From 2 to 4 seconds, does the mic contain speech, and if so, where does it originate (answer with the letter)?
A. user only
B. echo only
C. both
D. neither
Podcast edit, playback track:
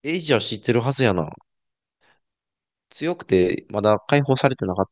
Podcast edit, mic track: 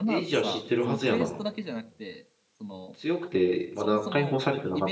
C